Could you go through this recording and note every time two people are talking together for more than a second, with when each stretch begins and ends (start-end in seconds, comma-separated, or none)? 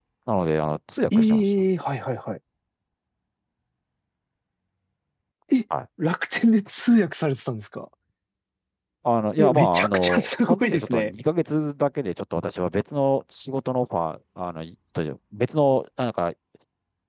9.4-11.1